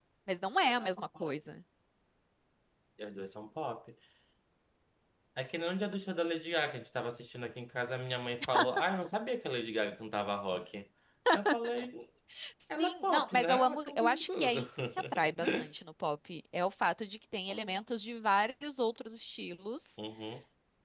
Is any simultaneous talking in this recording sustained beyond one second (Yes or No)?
Yes